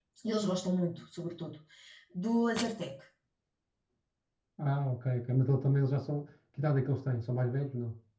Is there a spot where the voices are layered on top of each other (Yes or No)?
No